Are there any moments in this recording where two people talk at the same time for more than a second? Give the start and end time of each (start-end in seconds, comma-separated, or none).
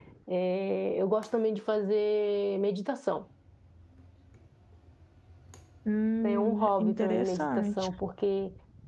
6.2-7.7